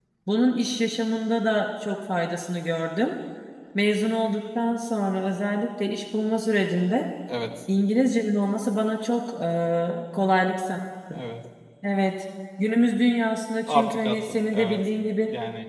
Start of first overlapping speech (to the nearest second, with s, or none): 14 s